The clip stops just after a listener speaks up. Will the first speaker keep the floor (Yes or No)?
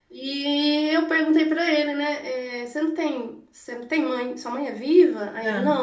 Yes